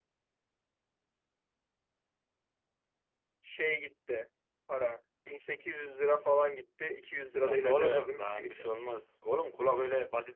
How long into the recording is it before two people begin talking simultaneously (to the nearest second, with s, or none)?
7 s